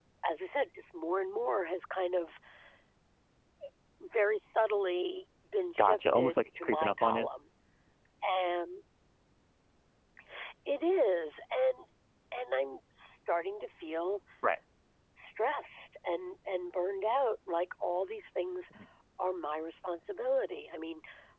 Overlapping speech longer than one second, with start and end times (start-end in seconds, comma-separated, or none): 5.8-7.3